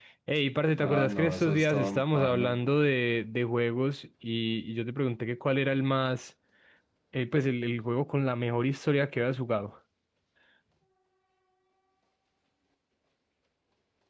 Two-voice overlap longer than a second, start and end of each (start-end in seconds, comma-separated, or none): 0.8-2.6